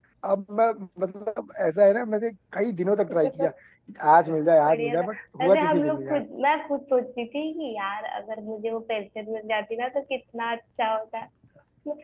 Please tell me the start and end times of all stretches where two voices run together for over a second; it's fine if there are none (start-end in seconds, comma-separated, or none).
4.7-6.2